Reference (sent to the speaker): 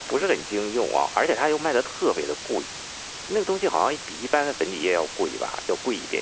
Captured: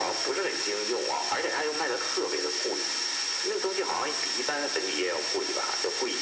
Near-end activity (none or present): none